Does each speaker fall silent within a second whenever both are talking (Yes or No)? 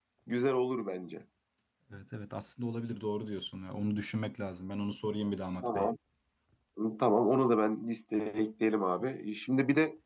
Yes